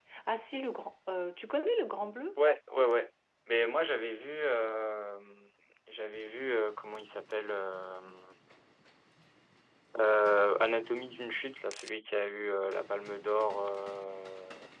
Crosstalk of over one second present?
No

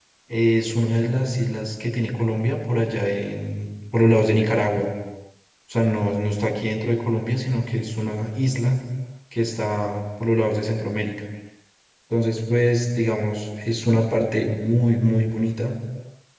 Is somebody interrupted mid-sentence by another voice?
No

